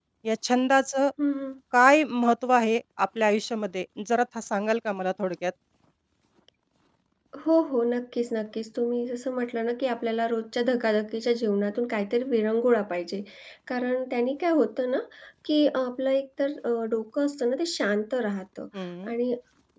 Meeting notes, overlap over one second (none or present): none